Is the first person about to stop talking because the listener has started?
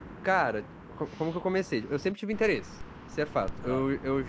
No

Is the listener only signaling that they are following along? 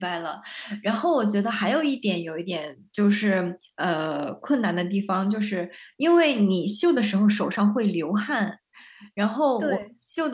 Yes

